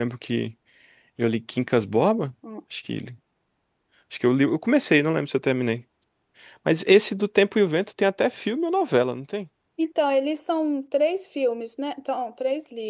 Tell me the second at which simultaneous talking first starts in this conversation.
none

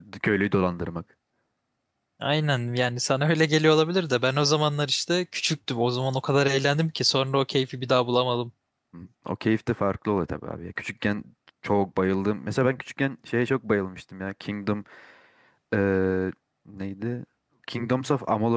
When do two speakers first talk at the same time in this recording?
none

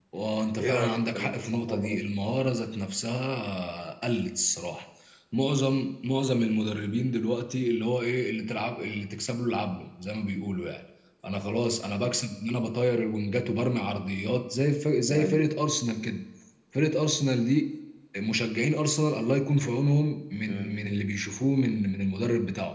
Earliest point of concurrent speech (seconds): 0.6 s

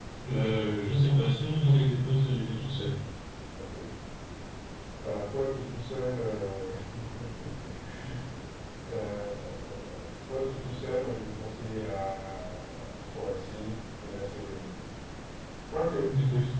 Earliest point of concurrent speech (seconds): none

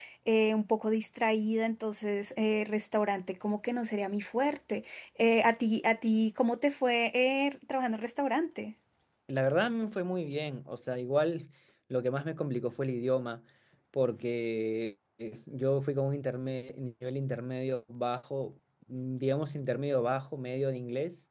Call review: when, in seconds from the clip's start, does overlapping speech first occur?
none

